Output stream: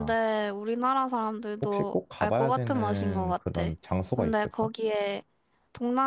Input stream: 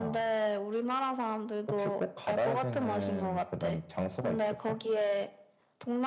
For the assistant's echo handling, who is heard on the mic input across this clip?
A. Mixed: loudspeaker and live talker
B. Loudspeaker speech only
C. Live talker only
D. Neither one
B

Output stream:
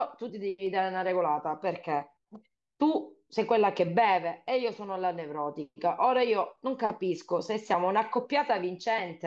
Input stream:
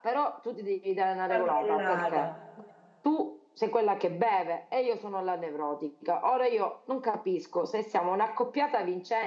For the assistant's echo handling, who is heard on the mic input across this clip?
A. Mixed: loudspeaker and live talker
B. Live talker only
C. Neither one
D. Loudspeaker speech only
A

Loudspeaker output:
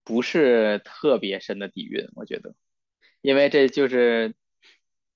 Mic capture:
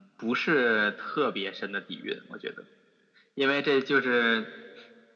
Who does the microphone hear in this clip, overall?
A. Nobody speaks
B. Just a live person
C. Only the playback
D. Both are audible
C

